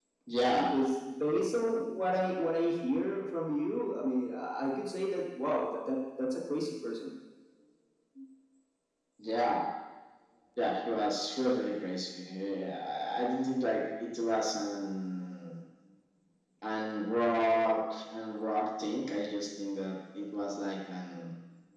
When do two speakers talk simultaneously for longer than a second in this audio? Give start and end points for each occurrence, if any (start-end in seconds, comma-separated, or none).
none